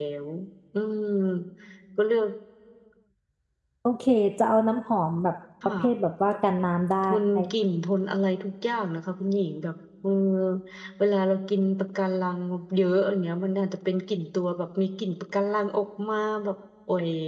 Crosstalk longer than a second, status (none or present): none